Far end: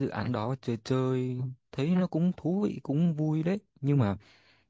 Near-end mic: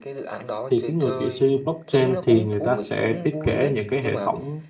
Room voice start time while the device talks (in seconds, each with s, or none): 0.7 s